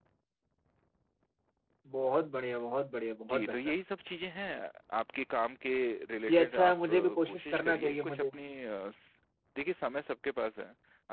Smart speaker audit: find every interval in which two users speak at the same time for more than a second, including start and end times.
6.3-8.2

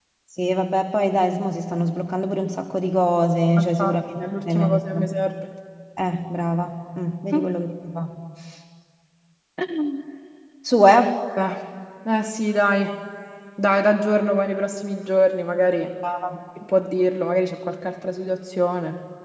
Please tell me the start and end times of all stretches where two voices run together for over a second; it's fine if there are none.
3.6-5.1

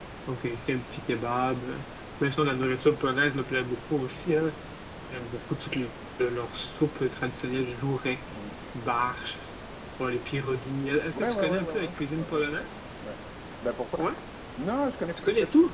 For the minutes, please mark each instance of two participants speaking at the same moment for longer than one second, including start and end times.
11.1-12.7

